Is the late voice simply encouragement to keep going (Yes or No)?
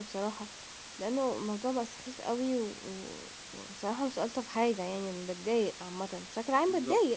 No